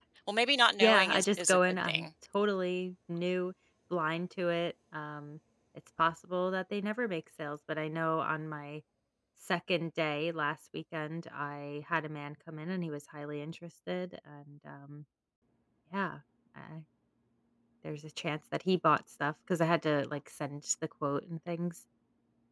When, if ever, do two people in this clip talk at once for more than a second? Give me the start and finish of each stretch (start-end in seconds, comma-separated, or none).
0.8-2.1